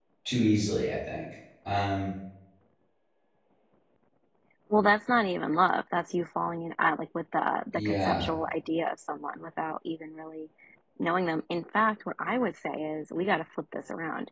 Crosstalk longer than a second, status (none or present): none